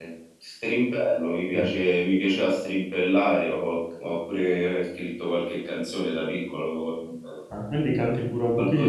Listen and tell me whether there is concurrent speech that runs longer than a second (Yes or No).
No